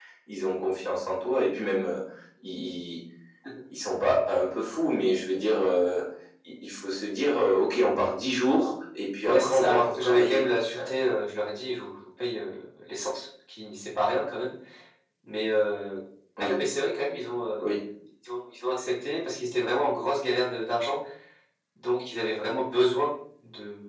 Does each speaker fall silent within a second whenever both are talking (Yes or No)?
No